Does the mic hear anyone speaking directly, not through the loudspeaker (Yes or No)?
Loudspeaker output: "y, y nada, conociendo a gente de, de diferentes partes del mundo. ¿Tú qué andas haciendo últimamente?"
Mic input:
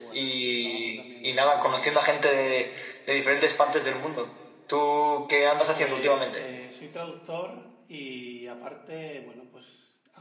Yes